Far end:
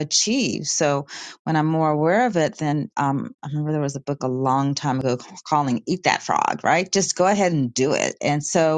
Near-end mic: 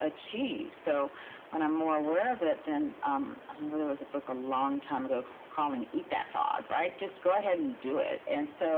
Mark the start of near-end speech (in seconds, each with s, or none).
none